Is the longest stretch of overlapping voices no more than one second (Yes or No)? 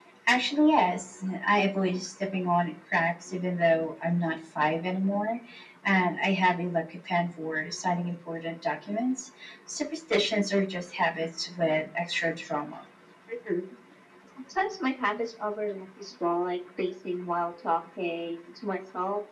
Yes